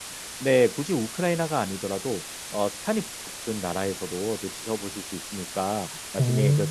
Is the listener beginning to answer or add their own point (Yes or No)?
No